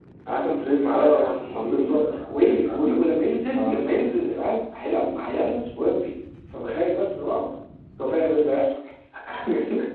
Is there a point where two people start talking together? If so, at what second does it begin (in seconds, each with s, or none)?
0.9 s